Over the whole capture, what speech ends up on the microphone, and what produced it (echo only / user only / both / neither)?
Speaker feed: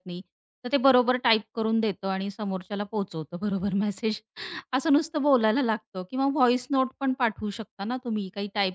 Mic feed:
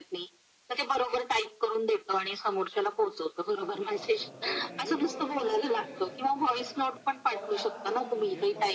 both